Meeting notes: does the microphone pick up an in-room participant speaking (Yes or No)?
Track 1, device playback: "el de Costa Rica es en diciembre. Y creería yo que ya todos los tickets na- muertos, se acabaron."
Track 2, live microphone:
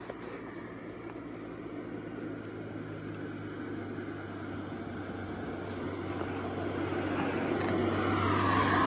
No